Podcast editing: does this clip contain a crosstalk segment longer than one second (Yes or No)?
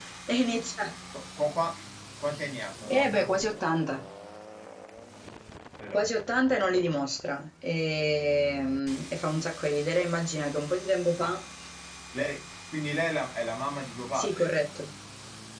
No